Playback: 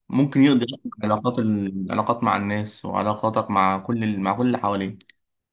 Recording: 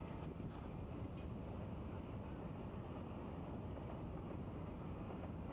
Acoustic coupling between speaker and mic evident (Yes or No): No